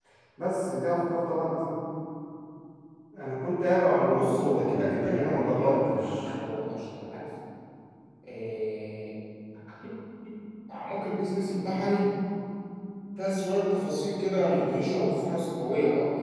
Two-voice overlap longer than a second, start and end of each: 4.1-6.3

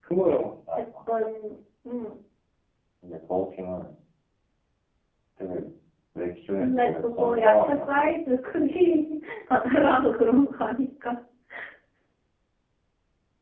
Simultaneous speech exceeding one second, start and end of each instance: 6.6-8.1

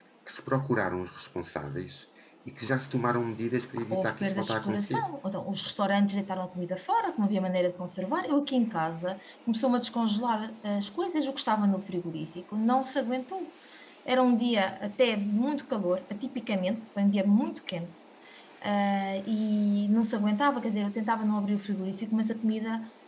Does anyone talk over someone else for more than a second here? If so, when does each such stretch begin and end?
3.8-5.0

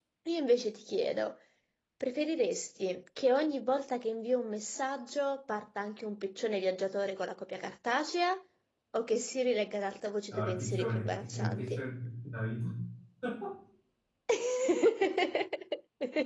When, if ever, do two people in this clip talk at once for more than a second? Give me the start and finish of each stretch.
10.3-11.8

